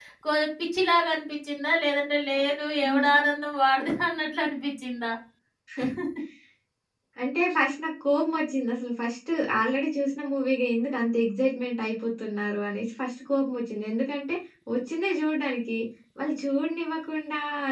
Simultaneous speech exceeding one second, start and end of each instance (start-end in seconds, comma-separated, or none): none